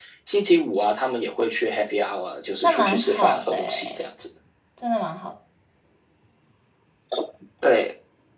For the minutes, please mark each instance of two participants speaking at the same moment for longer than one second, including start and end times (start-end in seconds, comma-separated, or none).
2.6-4.1